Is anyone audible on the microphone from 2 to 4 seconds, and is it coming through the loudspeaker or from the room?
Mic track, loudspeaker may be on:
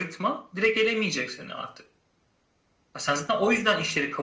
echo only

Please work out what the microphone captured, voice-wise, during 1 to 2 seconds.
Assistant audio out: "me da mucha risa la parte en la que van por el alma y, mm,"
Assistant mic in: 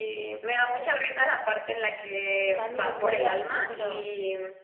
echo only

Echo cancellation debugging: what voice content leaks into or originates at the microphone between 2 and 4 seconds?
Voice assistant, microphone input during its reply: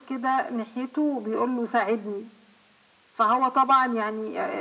echo only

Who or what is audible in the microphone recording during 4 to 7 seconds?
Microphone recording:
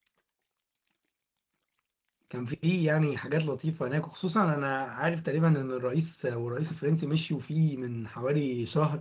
user only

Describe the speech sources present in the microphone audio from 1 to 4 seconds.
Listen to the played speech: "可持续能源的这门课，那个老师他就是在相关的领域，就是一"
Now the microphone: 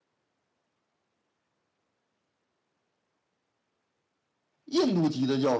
neither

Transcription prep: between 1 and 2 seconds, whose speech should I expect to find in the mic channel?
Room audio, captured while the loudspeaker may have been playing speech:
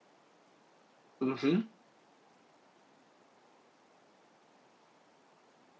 user only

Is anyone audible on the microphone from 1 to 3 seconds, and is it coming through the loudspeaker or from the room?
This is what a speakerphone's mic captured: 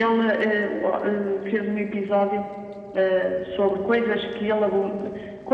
echo only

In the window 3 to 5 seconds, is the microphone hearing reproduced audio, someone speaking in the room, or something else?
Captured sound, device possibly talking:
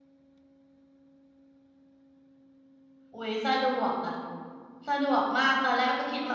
user only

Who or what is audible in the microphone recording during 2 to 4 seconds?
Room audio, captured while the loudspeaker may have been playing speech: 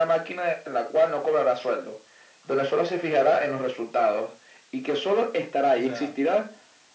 echo only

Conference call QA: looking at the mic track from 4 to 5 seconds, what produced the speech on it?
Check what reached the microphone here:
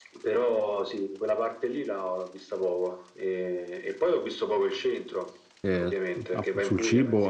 echo only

